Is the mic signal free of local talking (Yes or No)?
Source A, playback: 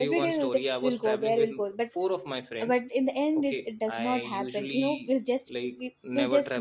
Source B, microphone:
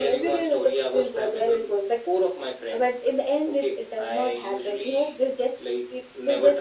Yes